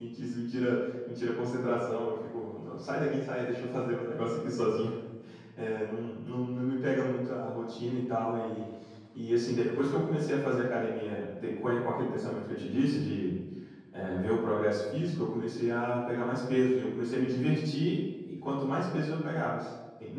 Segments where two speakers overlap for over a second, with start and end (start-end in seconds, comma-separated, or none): none